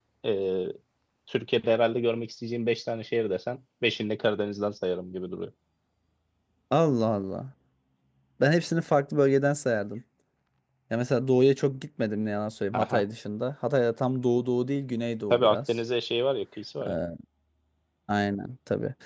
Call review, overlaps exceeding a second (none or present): none